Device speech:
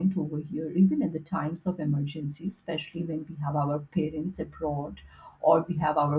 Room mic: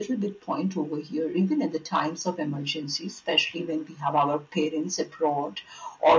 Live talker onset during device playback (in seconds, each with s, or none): none